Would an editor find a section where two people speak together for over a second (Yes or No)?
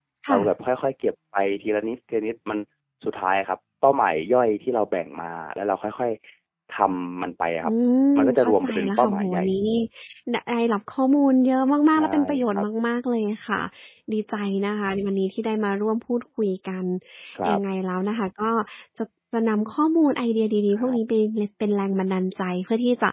Yes